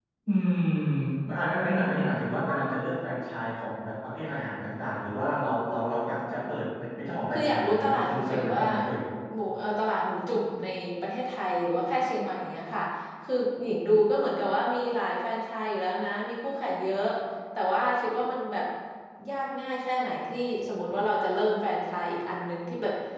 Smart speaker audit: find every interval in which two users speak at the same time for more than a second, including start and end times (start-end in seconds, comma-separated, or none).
7.3-8.6